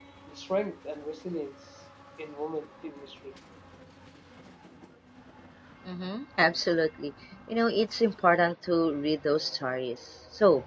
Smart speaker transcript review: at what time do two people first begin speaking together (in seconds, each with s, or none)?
none